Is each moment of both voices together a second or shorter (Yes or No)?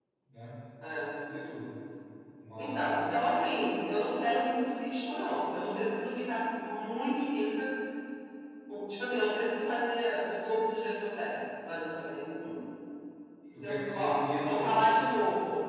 No